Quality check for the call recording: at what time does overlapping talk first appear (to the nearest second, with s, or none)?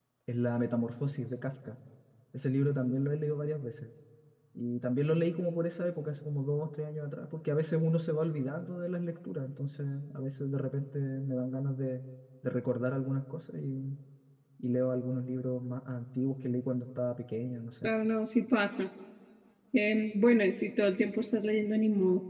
none